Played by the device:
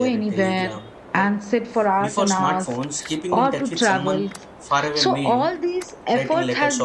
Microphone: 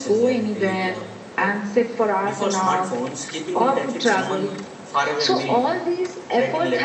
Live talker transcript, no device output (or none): none